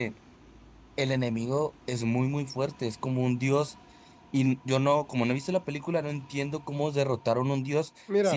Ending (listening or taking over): listening